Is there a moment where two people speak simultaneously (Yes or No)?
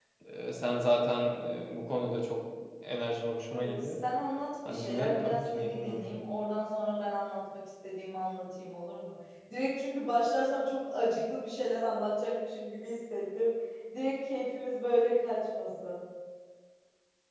Yes